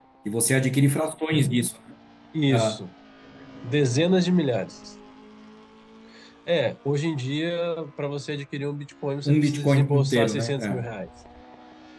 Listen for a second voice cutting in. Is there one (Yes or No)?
Yes